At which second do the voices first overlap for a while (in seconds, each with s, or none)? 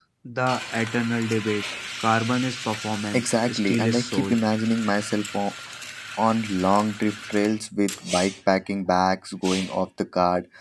3.1 s